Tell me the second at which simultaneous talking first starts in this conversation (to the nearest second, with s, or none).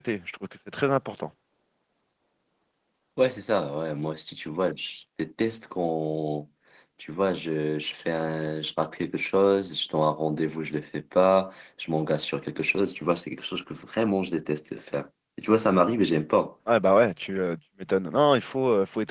none